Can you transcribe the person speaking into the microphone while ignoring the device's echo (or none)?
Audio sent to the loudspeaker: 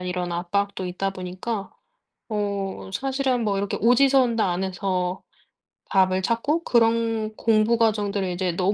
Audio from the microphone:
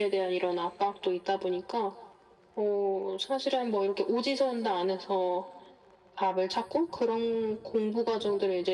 none